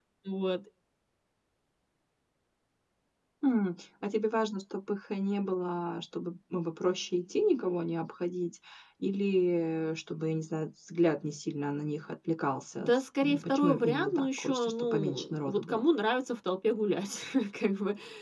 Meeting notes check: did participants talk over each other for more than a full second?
Yes, from 12.8 s

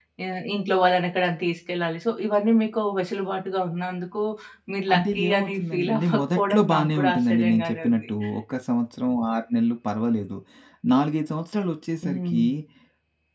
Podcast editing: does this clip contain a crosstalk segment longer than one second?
Yes, from 4.9 s

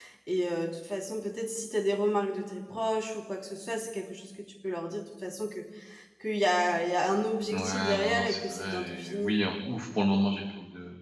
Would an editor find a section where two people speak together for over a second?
Yes, from 7.5 s

